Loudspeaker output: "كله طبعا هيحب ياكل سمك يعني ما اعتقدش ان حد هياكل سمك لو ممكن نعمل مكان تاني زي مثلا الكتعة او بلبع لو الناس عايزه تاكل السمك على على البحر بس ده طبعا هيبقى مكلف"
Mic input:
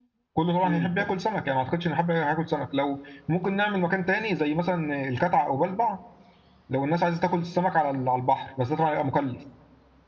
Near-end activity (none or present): present